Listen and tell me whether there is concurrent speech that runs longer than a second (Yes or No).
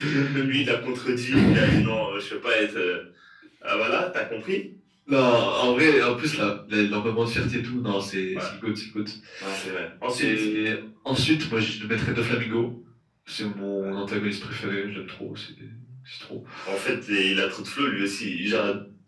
No